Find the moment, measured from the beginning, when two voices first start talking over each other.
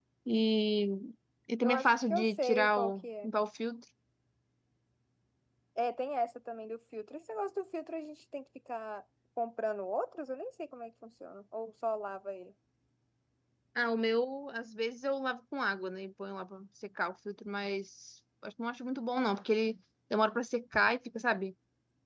1.6 s

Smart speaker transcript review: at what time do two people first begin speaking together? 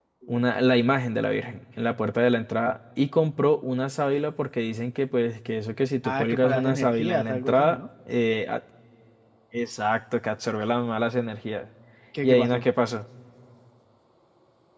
6.0 s

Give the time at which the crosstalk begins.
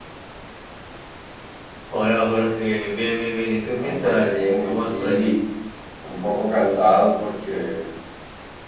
3.7 s

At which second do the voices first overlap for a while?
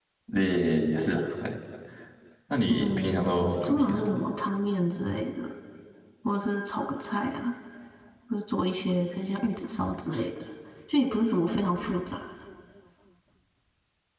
2.7 s

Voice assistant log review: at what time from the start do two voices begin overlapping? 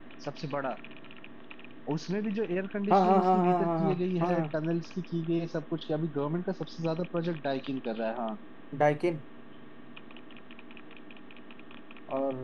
2.9 s

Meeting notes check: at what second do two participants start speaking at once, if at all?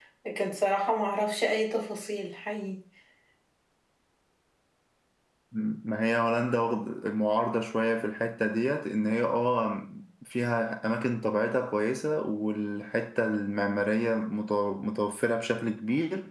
none

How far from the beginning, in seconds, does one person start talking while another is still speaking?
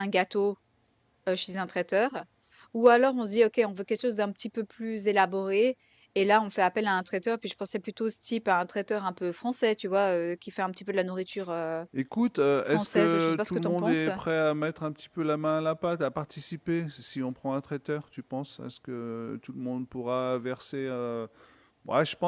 12.7 s

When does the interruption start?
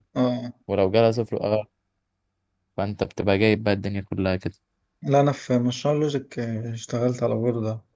none

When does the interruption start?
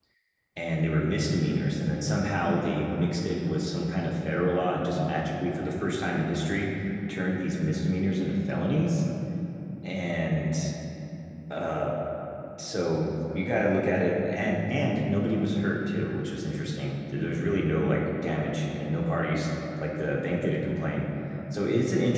none

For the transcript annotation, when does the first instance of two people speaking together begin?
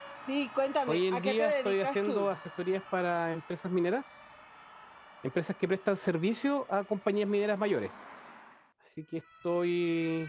0.9 s

